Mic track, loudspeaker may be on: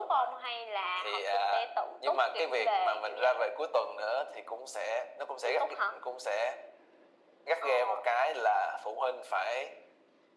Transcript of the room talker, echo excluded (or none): none